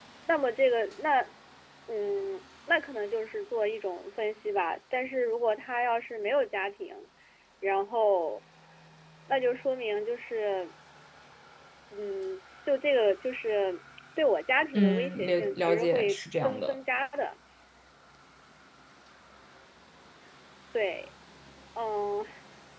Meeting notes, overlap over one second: present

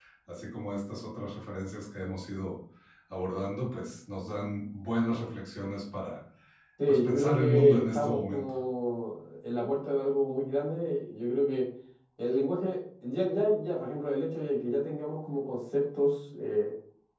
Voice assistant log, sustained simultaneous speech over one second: present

